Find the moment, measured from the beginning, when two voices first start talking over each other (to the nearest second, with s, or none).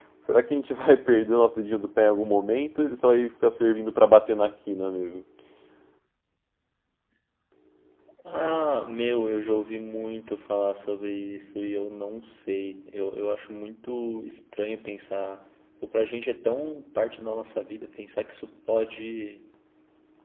none